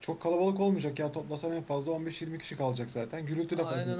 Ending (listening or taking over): taking over